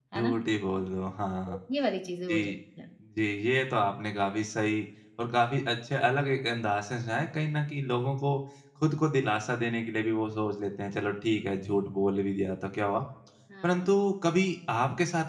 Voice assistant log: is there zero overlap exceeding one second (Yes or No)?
Yes